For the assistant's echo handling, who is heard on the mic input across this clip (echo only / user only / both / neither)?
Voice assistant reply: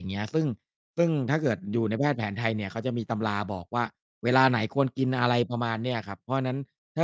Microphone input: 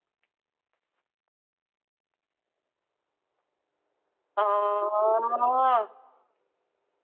user only